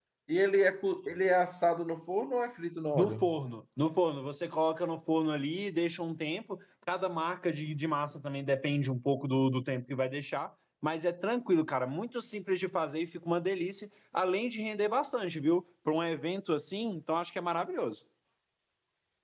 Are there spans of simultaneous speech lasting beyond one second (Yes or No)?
No